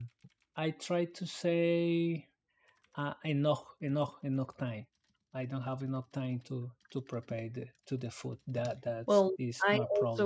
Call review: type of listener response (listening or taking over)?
taking over